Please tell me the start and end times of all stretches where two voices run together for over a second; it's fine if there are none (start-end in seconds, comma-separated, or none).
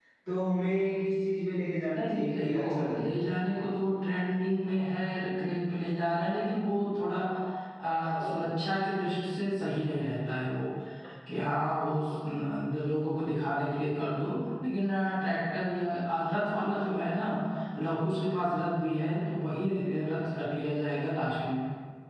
2.0-3.2